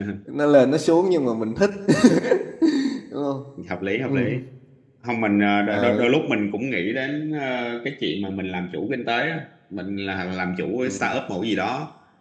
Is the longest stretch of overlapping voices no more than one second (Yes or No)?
Yes